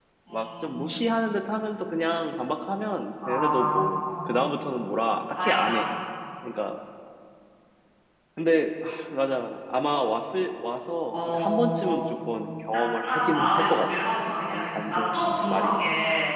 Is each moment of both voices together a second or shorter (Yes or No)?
No